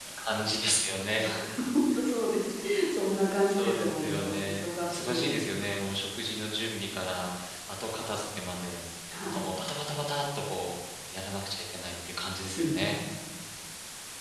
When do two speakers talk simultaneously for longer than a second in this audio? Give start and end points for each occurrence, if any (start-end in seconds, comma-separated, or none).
3.5-5.5